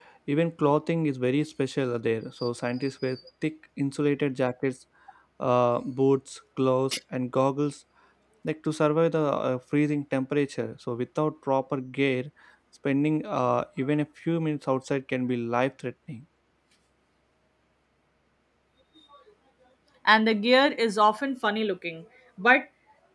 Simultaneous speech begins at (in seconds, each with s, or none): none